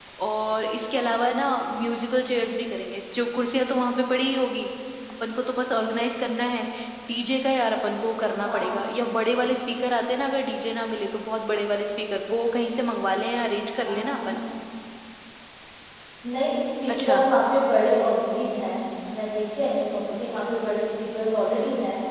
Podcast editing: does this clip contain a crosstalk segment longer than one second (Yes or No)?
No